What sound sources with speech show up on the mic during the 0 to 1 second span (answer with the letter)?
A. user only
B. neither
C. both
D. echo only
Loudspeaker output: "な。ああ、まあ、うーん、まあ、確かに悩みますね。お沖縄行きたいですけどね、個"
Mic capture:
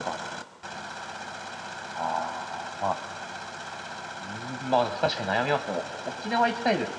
D